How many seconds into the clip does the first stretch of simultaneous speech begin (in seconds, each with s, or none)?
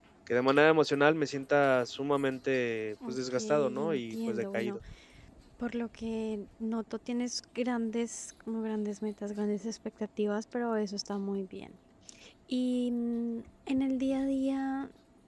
3.0 s